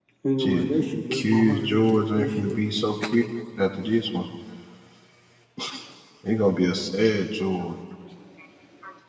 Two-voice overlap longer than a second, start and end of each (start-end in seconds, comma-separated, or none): 1.1-2.6